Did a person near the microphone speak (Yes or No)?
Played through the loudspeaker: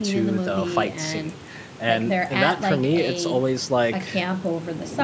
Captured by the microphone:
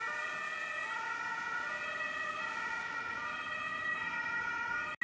No